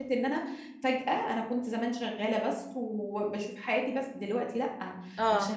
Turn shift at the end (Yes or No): No